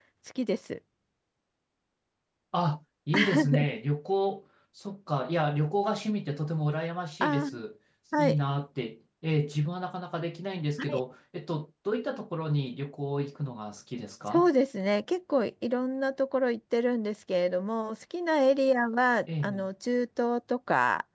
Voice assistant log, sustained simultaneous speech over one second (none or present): none